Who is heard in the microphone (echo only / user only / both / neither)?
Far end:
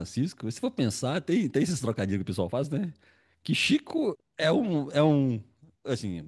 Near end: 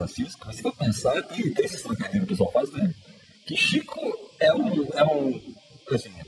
echo only